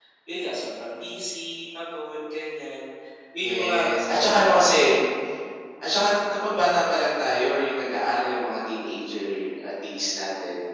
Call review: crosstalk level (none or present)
present